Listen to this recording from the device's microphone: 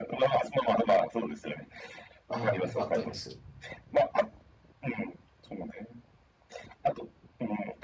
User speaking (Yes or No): Yes